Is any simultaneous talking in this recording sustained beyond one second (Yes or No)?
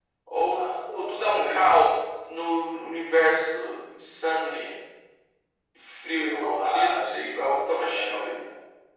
Yes